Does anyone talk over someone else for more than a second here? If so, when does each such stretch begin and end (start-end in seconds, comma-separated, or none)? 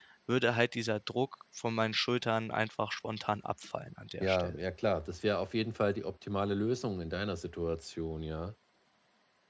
none